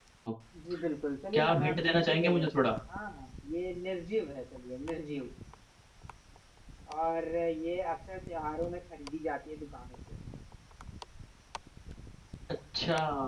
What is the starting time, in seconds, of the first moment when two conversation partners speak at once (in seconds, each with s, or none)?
1.3 s